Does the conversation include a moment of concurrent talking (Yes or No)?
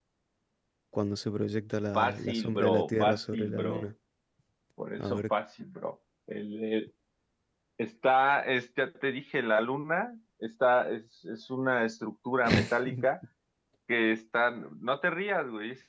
Yes